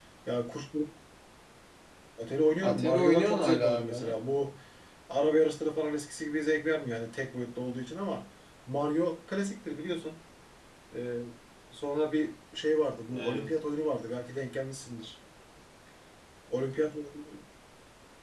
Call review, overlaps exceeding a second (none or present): present